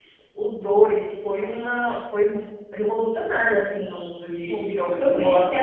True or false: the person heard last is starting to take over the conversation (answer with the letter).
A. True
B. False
A